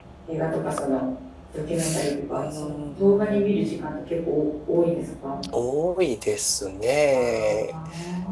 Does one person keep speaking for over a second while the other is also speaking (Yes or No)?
Yes